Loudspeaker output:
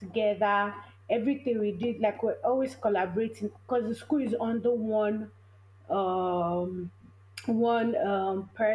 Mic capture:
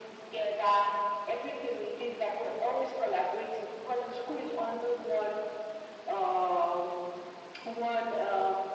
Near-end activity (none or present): none